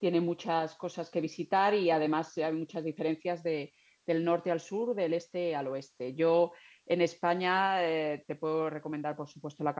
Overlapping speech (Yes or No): No